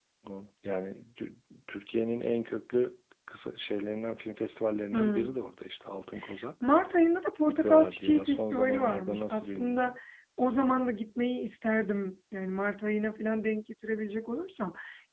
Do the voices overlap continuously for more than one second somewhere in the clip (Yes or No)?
Yes